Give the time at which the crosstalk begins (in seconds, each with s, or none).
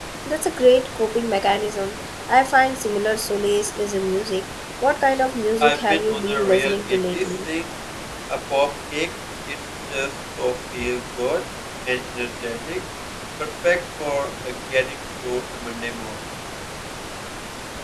5.6 s